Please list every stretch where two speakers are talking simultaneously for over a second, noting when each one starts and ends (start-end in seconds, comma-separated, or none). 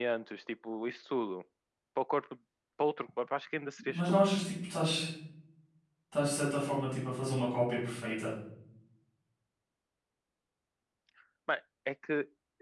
none